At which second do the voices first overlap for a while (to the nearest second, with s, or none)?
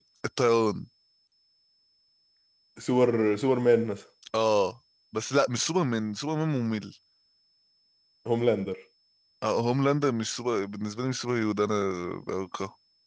none